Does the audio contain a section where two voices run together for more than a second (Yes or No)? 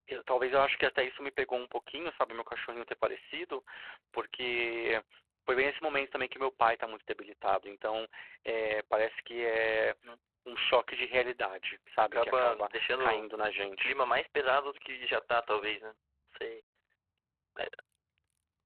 Yes